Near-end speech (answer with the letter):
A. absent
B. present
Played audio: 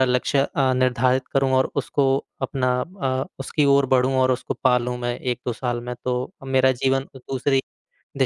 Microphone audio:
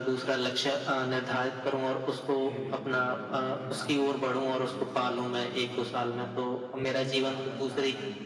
B